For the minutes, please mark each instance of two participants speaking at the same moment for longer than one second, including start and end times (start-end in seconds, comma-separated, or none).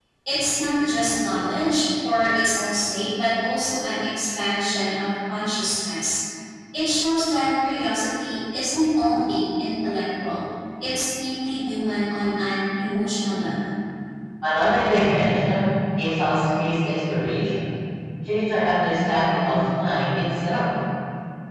none